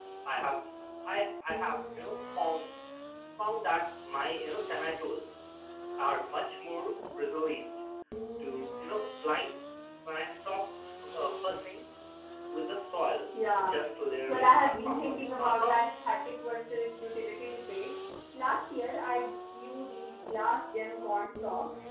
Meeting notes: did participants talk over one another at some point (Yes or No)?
Yes